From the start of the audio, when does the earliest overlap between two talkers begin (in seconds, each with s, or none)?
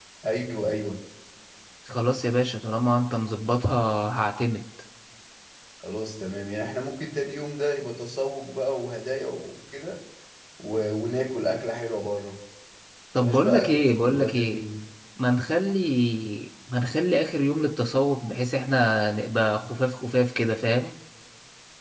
13.2 s